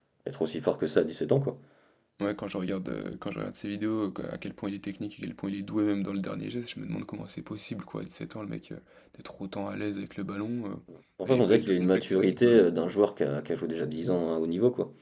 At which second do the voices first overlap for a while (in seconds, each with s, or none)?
11.3 s